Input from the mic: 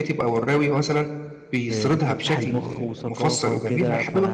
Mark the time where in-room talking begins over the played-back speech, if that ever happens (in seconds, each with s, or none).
1.6 s